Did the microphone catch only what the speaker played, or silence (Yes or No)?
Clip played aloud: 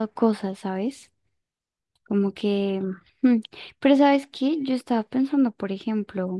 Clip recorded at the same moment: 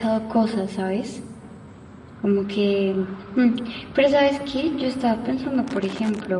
Yes